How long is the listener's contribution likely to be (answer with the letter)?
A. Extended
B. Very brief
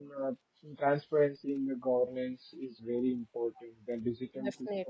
B